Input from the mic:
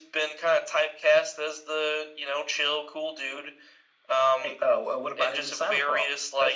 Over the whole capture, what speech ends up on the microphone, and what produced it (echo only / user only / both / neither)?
echo only